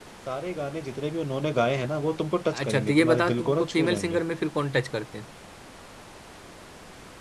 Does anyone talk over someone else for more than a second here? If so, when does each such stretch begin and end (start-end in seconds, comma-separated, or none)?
2.5-4.2